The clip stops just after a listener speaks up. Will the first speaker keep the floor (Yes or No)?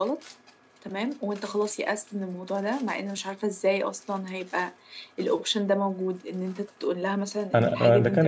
No